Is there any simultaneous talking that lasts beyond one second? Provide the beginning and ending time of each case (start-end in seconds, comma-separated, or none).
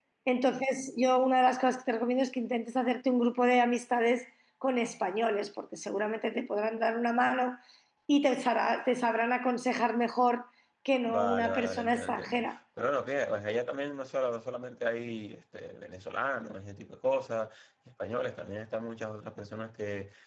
11.0-12.6